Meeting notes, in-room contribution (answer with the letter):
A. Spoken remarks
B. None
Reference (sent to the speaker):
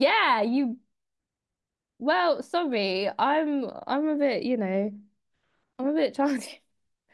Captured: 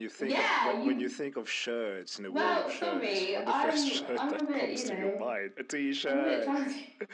A